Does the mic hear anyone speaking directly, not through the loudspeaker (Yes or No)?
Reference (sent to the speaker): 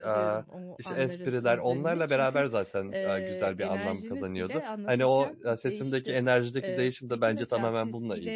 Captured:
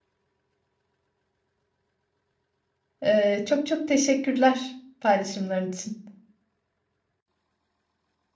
Yes